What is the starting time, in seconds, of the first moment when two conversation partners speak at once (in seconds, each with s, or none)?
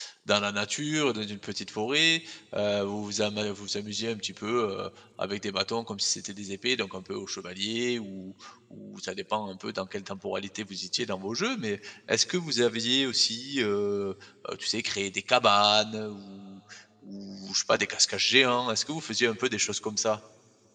none